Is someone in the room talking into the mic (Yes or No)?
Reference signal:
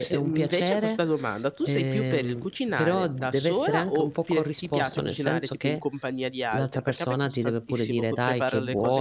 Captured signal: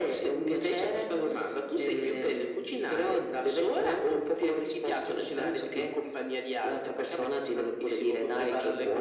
No